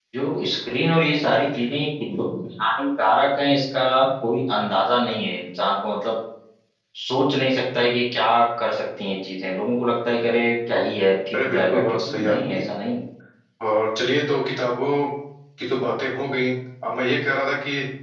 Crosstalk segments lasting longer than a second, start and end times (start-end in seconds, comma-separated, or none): 11.3-12.6